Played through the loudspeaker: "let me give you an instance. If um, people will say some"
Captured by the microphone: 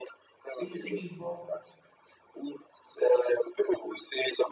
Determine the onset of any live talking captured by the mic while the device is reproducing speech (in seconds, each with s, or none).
0.6 s